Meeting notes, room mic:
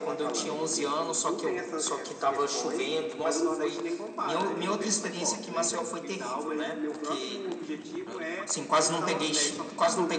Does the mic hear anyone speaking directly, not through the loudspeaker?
No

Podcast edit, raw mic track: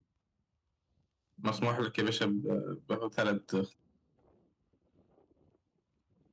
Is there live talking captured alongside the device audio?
Yes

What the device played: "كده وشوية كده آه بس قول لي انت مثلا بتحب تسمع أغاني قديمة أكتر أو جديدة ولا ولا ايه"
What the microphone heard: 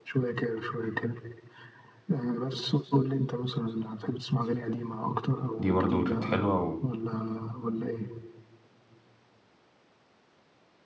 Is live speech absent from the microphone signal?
No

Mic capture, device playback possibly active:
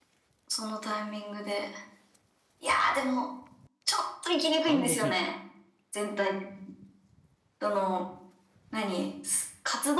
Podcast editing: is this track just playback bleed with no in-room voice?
No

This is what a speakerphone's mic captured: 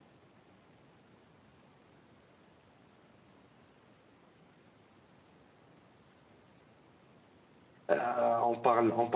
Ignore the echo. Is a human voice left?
Yes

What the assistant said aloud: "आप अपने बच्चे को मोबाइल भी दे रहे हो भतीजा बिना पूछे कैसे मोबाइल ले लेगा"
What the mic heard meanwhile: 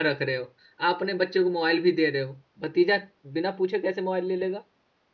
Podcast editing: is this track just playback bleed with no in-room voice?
Yes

